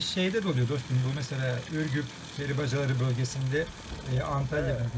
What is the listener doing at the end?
listening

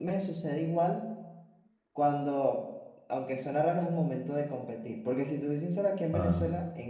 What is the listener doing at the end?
listening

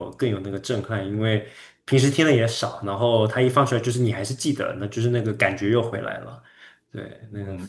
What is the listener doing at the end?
taking over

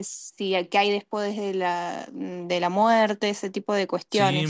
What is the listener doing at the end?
taking over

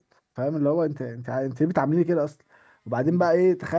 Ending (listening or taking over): listening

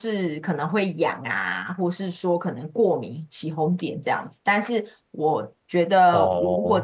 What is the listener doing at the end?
listening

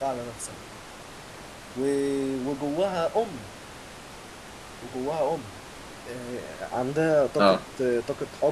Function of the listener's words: listening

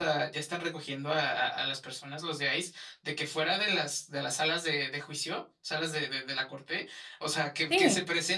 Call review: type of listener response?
listening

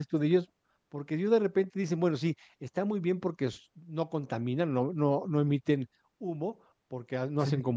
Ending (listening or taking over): listening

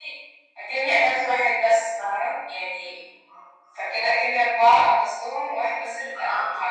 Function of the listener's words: taking over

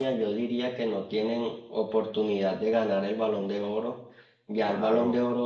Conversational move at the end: listening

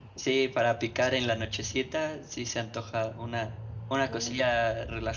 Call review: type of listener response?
listening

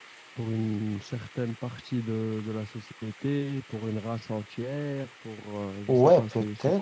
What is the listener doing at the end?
taking over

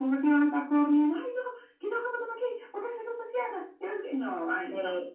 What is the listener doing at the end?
taking over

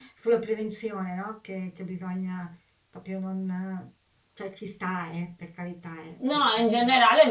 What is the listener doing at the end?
taking over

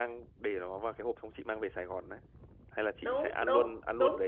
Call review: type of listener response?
taking over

